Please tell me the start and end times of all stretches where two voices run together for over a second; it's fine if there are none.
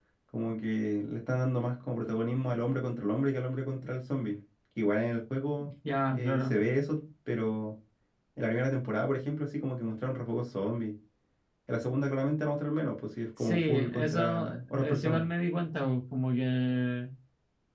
13.4-15.3

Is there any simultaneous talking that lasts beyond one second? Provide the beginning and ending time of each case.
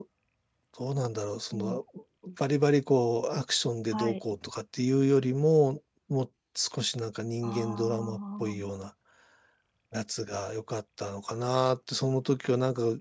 7.4-8.6

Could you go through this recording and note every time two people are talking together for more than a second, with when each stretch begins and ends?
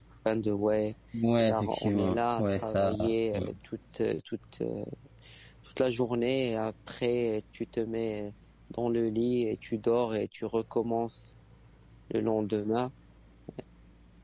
1.5-2.9

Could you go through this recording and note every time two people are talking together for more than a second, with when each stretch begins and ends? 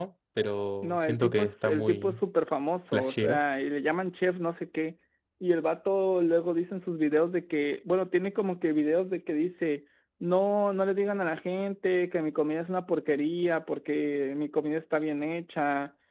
0.8-2.2

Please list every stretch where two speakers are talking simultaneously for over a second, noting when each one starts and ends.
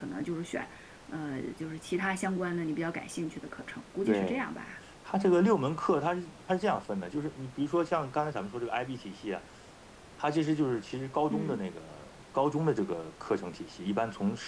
none

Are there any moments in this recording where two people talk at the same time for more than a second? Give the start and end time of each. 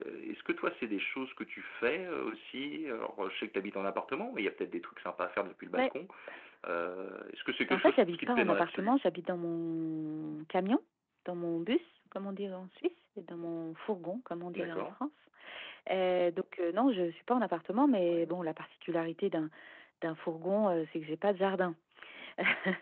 7.7-9.0

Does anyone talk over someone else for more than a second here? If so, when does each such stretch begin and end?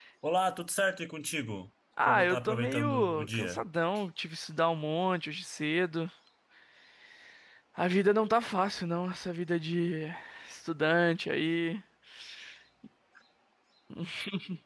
2.0-3.6

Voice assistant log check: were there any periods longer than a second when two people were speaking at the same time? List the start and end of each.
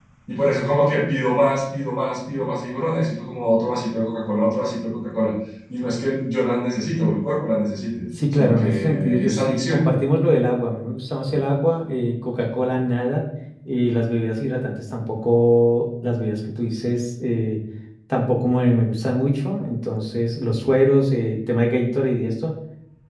8.3-9.9

